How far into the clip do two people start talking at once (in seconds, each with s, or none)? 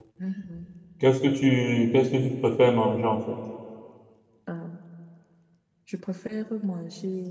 none